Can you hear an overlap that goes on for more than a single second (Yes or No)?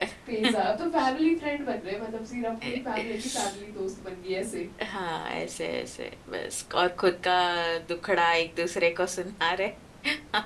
No